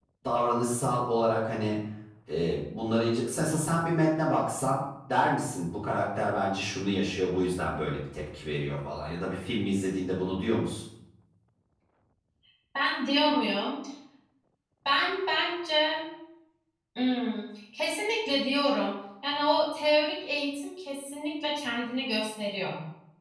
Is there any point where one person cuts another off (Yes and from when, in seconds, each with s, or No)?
No